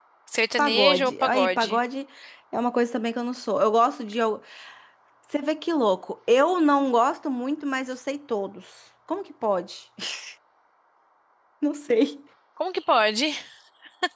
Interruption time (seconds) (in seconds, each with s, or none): 0.6 s